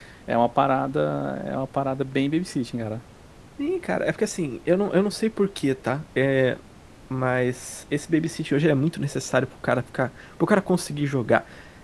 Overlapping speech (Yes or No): No